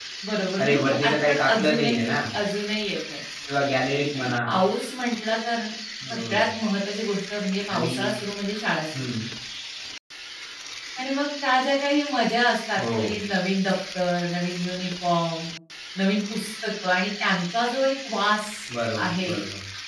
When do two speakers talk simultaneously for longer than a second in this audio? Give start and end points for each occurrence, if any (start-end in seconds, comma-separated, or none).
0.6-2.1